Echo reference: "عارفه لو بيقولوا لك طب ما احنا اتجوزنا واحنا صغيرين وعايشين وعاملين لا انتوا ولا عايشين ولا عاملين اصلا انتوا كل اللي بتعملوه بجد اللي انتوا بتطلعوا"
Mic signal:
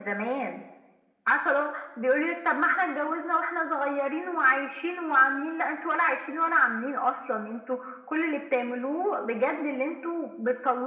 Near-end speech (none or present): none